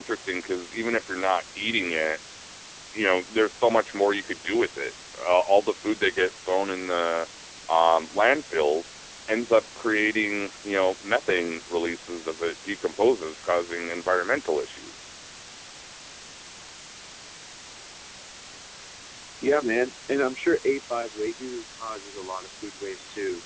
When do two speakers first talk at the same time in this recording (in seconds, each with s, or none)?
none